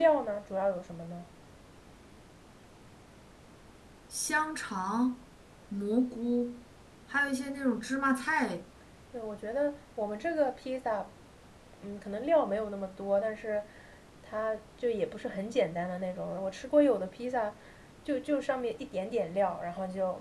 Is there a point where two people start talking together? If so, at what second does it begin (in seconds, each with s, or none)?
none